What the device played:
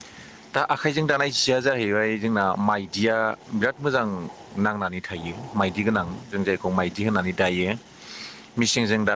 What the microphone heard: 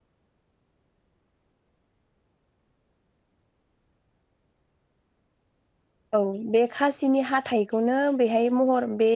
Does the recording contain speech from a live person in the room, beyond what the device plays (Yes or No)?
Yes